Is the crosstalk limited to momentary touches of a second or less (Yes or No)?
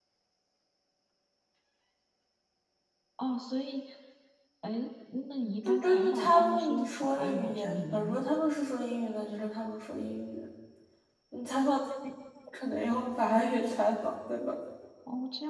No